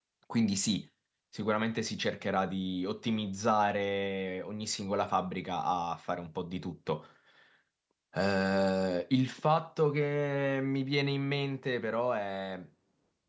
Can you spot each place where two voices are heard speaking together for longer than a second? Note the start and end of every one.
none

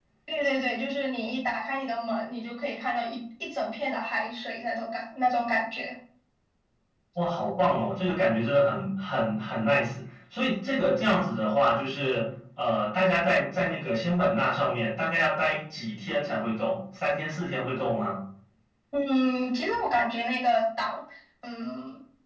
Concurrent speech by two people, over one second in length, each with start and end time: none

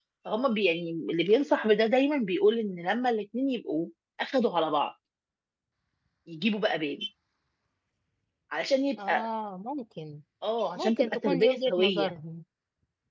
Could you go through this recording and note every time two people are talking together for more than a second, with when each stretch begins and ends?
10.8-12.1

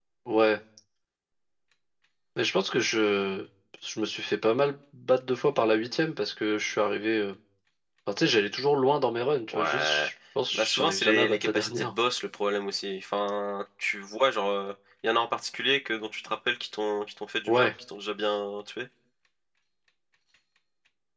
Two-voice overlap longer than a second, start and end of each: 10.5-11.9

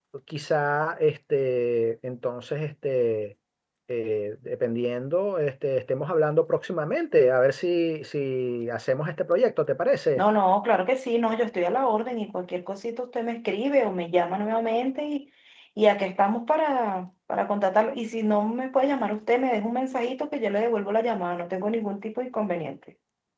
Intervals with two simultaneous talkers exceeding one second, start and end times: none

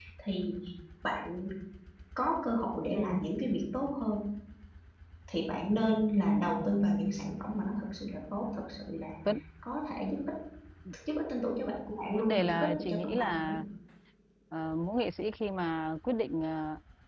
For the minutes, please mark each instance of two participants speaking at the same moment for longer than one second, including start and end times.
12.1-13.5

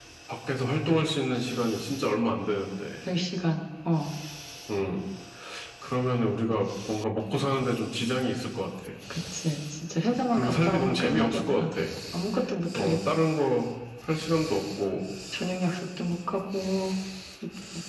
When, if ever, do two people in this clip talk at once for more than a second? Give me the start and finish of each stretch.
10.3-11.6

